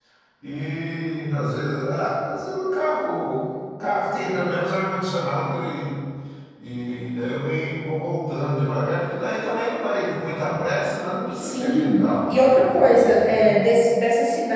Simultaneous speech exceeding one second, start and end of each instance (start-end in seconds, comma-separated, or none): 11.4-13.3